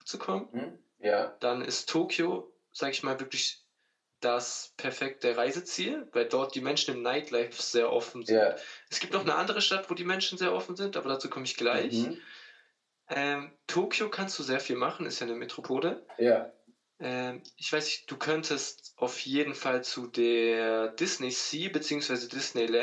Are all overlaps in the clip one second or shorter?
Yes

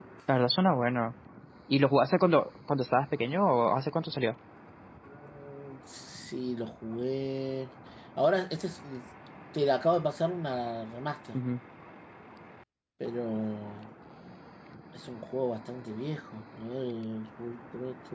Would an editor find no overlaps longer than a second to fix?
Yes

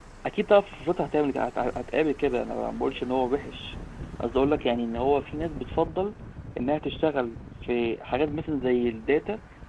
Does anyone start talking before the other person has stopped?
No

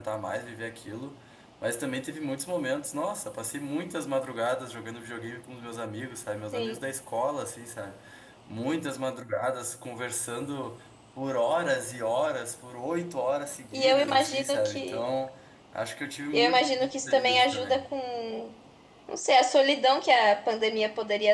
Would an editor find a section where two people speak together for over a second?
Yes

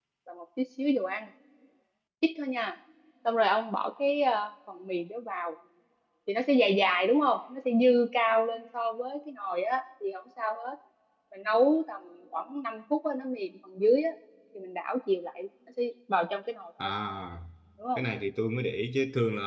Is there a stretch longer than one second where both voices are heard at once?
No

